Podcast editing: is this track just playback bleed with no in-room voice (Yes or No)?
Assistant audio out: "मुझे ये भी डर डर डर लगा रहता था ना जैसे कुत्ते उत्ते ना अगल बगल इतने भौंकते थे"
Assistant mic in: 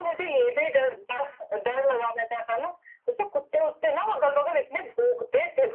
Yes